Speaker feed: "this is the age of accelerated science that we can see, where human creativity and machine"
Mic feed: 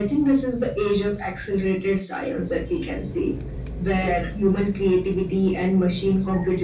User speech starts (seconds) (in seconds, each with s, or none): none